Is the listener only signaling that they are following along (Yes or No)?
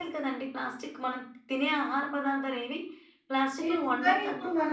No